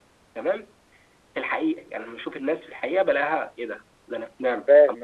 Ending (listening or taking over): listening